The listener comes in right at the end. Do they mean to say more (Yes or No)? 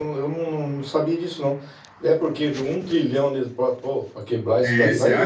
Yes